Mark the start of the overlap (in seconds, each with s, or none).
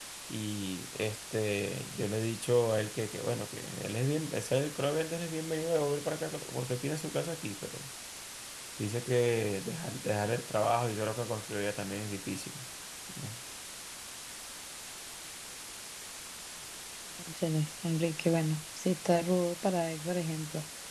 none